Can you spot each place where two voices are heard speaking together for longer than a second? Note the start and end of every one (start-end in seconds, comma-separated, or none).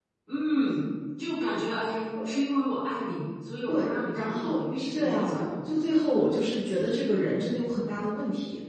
3.7-5.5